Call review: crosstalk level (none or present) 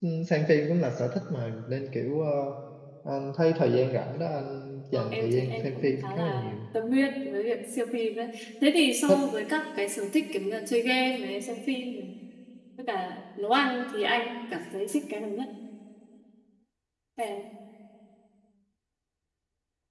present